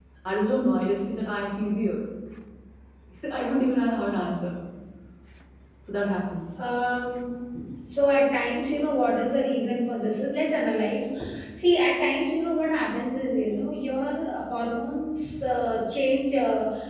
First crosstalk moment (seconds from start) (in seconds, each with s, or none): none